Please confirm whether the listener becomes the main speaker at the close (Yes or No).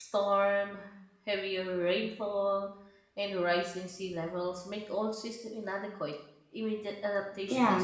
Yes